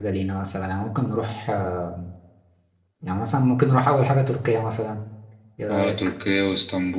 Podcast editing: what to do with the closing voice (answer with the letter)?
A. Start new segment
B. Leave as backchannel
A